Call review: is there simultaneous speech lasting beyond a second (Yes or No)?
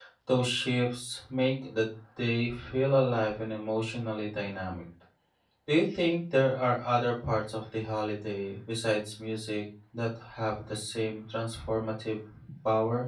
No